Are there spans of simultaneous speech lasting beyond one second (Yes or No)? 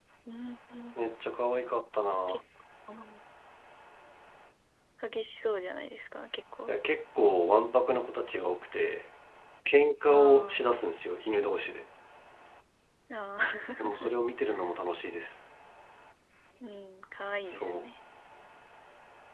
No